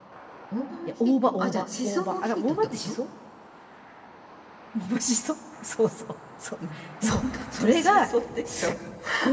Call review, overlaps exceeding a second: present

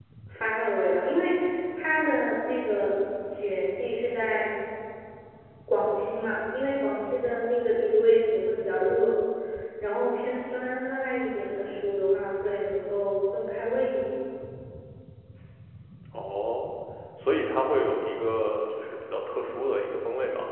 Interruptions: none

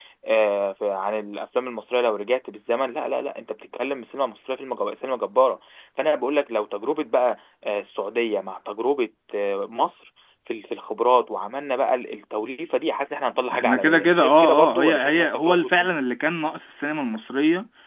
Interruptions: present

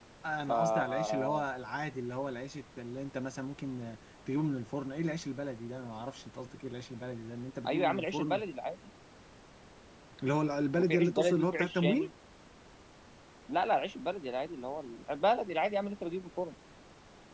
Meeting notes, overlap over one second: present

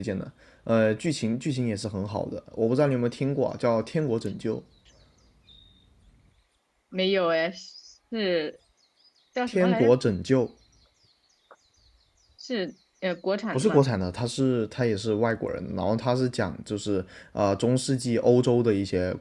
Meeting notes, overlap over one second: none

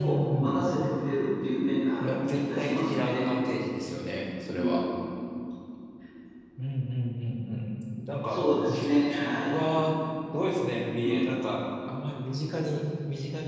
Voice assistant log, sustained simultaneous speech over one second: present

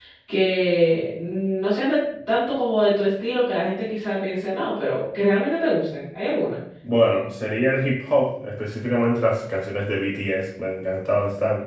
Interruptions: none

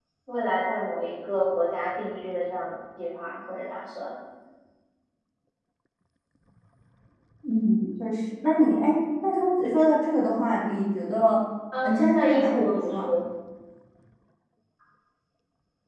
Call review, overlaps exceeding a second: present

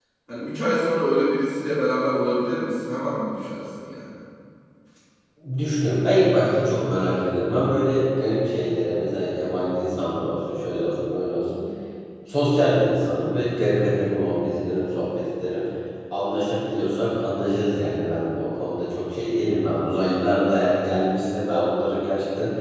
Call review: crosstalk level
none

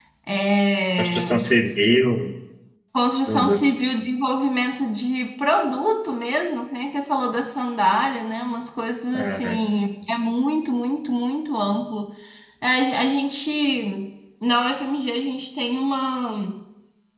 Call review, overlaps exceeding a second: none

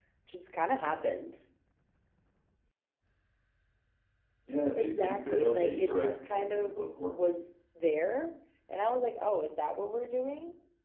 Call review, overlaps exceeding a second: present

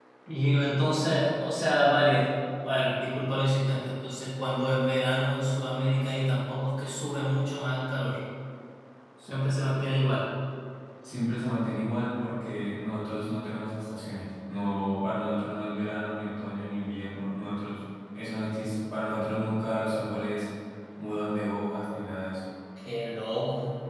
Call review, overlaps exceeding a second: none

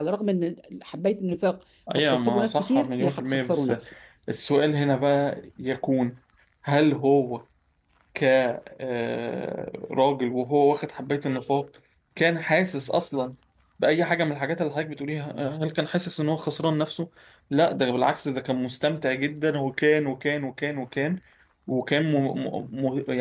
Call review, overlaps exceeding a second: present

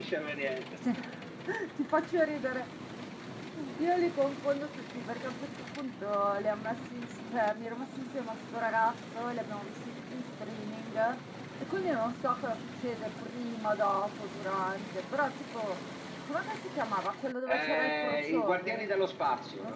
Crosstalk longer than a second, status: present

